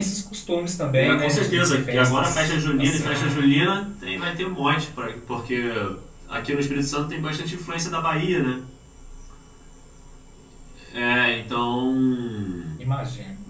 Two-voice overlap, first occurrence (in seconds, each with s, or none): 0.9 s